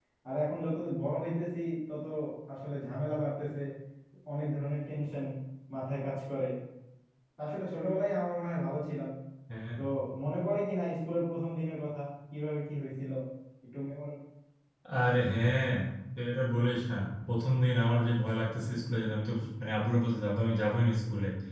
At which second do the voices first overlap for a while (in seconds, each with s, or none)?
none